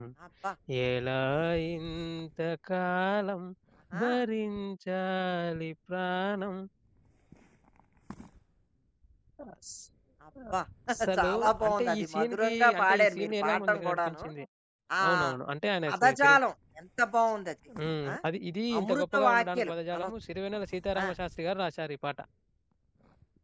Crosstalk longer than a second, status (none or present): present